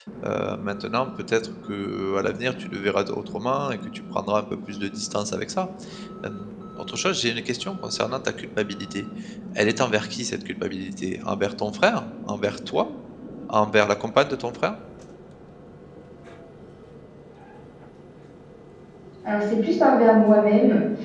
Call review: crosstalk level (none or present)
none